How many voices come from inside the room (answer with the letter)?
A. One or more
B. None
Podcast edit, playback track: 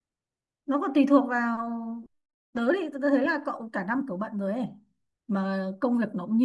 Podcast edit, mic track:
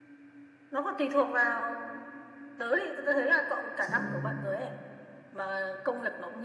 A